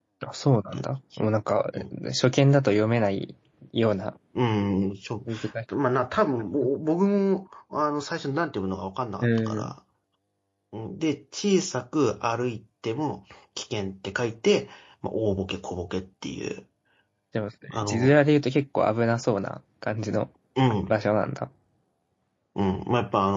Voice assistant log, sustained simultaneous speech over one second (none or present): none